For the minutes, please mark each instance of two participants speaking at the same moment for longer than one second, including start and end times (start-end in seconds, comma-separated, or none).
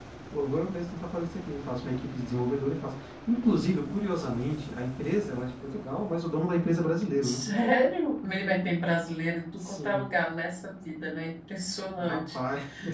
none